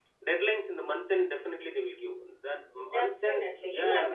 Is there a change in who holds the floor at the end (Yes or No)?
Yes